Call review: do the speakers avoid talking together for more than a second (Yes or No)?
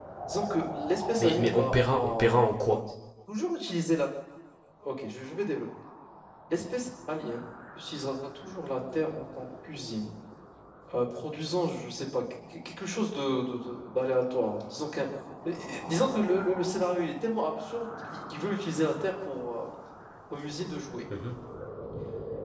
No